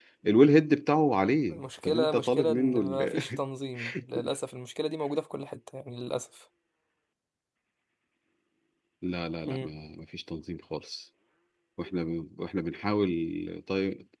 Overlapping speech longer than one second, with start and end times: 1.5-3.2

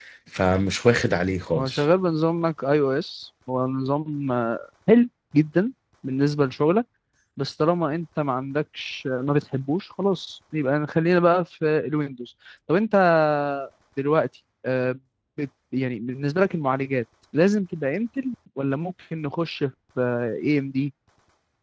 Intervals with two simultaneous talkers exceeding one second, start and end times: none

